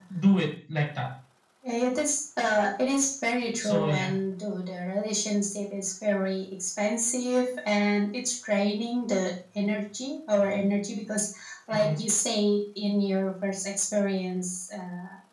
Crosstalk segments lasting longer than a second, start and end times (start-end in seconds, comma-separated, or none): none